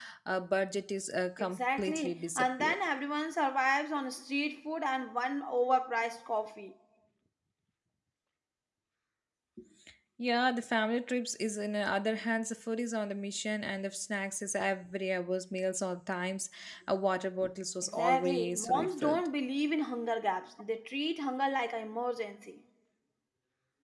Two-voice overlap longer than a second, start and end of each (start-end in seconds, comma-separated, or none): 1.4-2.8, 17.8-19.3